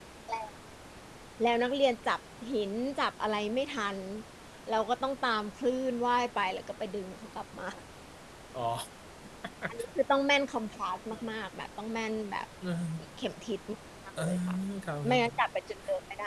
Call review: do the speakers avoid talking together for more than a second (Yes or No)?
Yes